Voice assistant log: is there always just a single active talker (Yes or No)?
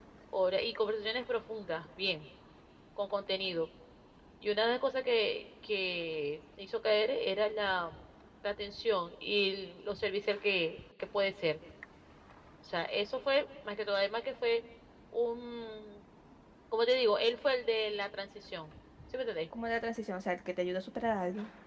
Yes